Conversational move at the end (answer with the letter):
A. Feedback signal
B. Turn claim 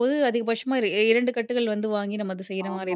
B